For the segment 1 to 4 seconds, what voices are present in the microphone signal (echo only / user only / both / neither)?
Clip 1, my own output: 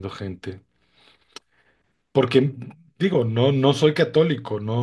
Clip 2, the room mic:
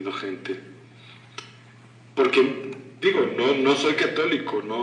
echo only